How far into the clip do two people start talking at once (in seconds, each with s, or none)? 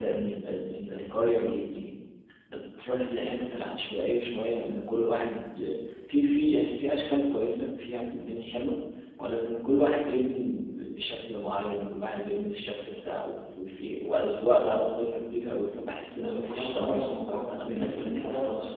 16.2 s